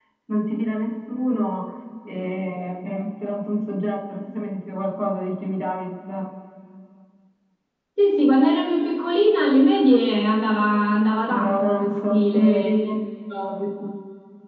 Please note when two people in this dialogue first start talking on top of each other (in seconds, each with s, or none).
11.3 s